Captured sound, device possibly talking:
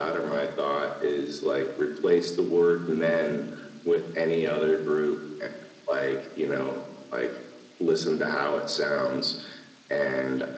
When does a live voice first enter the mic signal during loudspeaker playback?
none

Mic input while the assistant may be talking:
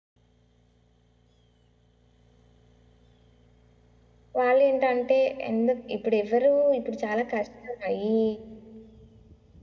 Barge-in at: 4.4 s

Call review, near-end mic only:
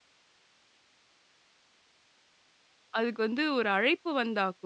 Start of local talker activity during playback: 3.0 s

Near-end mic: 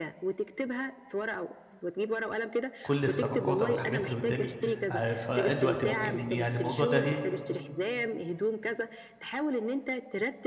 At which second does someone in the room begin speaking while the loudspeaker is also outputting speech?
2.8 s

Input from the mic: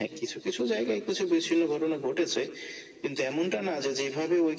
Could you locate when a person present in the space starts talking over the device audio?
none

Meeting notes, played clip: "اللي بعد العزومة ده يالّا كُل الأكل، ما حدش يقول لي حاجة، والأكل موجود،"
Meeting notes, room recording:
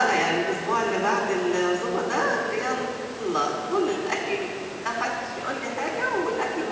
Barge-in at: none

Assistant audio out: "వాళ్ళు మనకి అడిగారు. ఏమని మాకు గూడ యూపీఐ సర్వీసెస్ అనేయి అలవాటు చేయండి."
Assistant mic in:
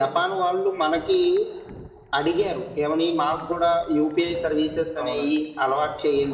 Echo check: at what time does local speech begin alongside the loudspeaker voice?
5.0 s

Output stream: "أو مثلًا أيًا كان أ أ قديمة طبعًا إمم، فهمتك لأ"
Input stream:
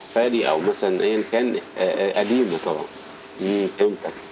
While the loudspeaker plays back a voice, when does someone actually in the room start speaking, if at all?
none

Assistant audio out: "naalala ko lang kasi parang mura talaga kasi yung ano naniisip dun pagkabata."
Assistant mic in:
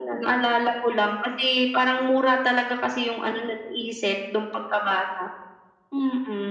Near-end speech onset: none

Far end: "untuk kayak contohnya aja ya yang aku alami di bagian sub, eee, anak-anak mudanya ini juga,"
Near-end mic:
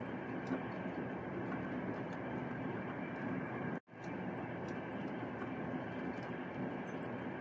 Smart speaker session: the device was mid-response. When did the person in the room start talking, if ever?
none

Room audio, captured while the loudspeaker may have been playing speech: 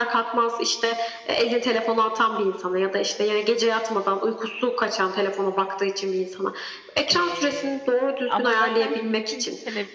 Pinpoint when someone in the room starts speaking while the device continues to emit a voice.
7.1 s

